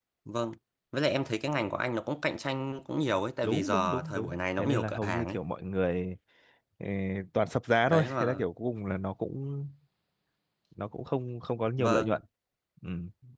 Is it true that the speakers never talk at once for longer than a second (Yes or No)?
No